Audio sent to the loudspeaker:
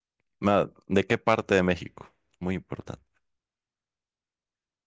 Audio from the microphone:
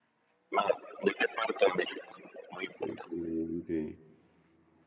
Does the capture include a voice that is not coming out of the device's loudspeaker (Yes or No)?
Yes